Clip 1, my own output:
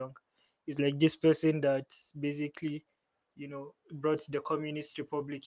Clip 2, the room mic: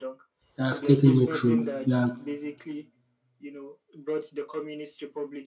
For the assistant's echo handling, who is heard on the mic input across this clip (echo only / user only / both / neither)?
both